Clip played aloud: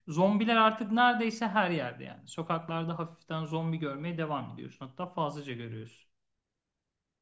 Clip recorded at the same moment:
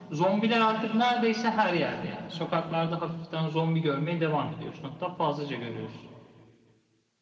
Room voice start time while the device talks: none

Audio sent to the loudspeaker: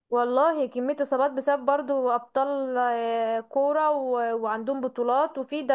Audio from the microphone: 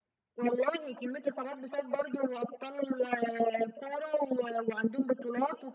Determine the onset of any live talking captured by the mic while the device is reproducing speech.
none

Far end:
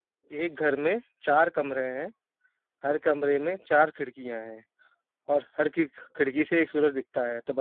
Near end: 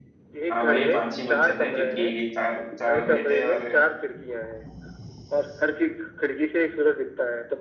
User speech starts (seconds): 0.5 s

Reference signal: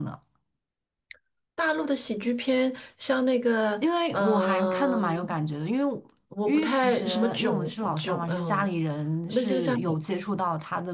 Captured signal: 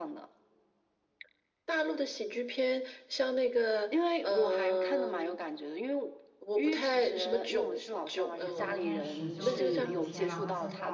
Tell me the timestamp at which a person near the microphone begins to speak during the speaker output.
8.4 s

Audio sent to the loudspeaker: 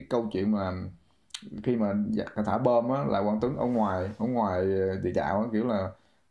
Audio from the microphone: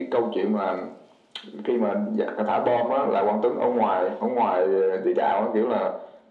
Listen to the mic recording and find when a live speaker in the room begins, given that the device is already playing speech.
none

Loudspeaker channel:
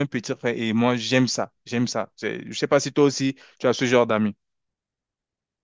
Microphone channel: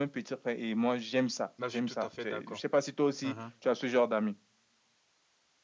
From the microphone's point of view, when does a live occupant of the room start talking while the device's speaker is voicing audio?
1.6 s

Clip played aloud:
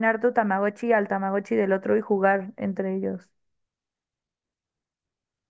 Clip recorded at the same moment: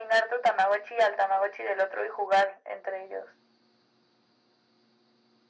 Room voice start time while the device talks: none

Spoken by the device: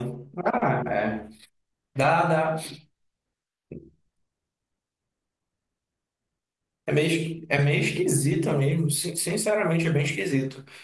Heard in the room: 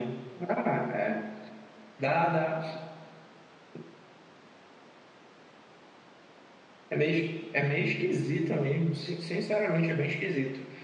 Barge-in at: none

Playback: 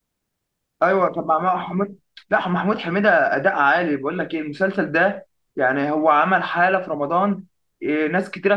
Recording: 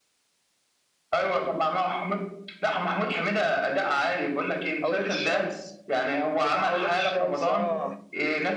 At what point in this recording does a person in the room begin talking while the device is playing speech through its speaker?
4.8 s

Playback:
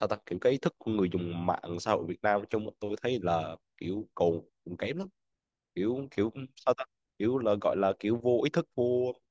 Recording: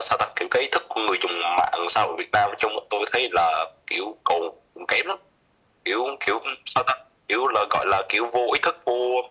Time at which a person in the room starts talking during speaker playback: none

